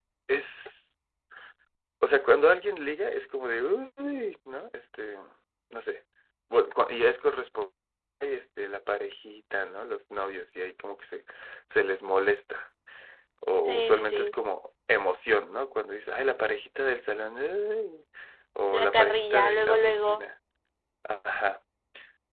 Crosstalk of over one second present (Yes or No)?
Yes